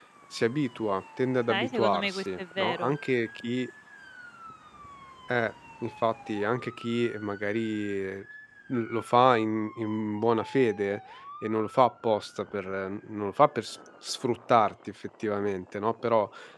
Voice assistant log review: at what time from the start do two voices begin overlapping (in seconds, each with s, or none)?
1.5 s